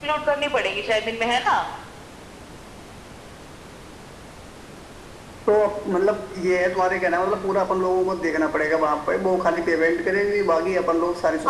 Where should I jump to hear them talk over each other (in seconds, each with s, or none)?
none